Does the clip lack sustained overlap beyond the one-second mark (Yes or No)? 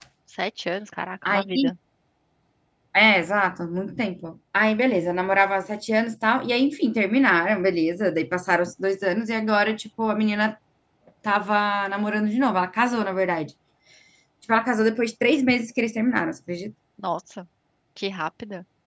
Yes